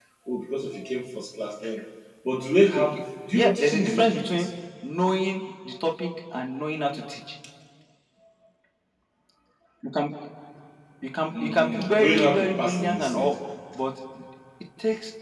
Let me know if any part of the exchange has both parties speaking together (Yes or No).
Yes